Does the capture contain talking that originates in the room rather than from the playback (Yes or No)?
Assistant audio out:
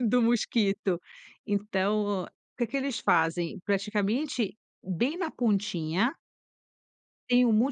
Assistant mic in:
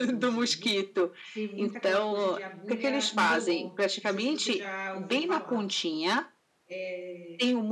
Yes